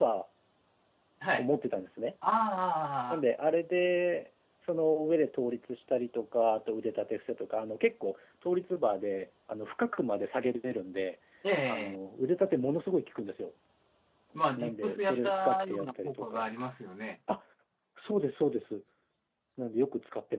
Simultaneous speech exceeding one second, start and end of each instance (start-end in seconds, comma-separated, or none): 14.6-16.4